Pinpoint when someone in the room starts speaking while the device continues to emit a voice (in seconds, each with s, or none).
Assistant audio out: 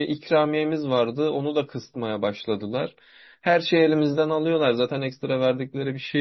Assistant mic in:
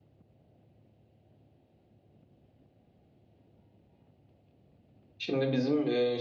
5.2 s